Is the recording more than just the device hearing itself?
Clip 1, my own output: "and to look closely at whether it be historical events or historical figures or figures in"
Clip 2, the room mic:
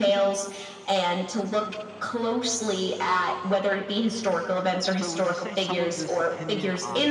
Yes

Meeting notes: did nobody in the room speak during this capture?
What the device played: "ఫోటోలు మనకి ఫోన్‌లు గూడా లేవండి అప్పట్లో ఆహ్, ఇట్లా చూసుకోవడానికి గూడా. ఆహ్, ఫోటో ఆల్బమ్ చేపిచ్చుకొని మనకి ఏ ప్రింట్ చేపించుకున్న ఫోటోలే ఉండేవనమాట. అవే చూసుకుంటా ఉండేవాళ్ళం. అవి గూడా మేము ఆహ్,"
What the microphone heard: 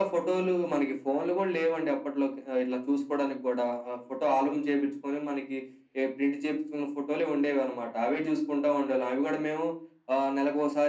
Yes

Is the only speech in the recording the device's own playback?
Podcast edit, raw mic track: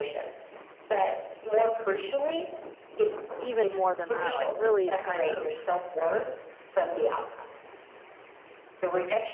No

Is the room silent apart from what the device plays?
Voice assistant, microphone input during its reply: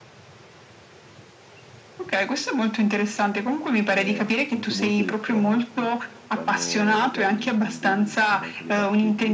No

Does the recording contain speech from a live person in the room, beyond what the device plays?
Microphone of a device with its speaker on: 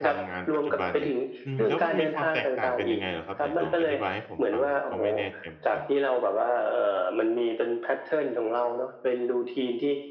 Yes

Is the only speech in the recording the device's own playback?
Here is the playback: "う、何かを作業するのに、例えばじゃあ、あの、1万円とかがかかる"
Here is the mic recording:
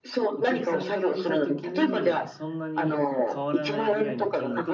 No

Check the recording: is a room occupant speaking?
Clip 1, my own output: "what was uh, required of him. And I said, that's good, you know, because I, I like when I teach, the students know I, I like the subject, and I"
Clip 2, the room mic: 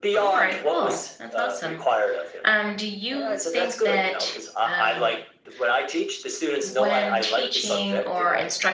Yes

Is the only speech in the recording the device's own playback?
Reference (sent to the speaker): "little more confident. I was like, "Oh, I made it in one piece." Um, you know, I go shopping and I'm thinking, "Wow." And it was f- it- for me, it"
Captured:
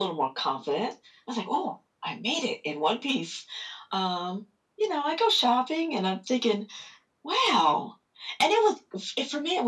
Yes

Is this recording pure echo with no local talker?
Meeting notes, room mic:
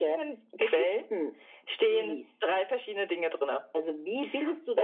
Yes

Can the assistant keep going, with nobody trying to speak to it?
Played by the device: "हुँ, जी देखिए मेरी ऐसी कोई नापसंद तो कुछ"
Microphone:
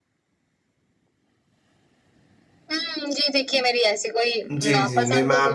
No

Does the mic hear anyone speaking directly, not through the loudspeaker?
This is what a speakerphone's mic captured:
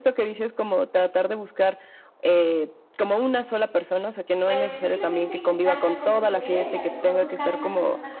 Yes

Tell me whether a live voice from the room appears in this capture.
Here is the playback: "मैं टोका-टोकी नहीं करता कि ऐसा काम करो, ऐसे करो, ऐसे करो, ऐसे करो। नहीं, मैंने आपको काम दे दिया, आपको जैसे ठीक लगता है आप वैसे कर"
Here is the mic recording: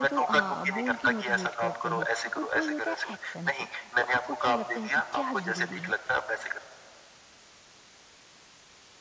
Yes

